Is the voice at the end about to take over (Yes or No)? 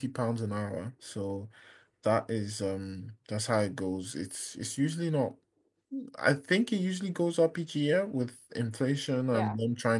No